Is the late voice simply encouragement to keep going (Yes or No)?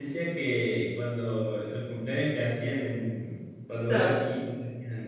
Yes